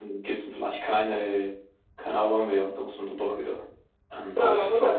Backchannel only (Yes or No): No